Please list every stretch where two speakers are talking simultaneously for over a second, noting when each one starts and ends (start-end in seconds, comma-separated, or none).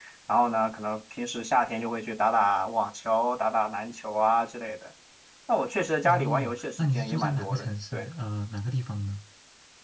6.0-8.1